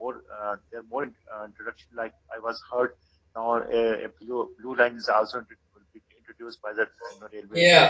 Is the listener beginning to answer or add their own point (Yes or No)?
Yes